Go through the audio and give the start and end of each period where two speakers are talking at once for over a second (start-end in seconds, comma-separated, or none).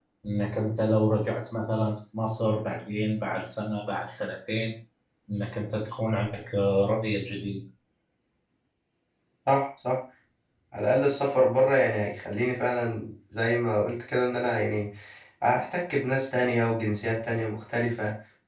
none